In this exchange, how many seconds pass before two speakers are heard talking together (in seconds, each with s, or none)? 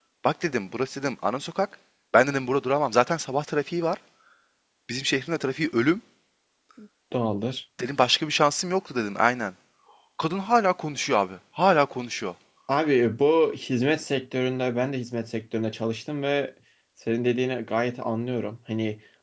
none